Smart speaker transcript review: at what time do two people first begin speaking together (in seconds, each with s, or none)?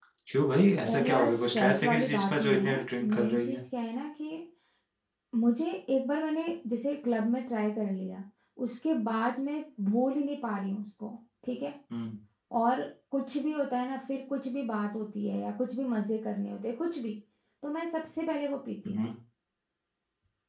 0.9 s